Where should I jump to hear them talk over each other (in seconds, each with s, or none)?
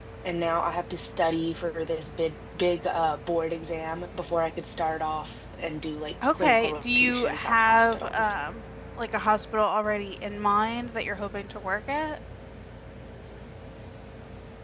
6.2 s